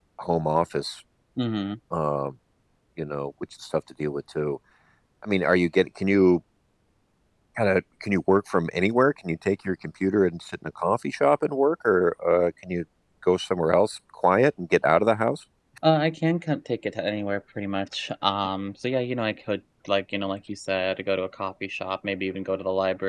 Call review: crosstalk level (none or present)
none